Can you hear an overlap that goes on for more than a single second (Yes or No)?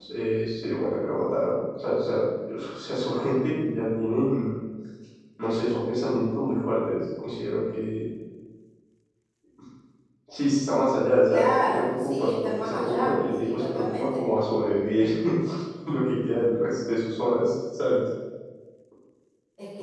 Yes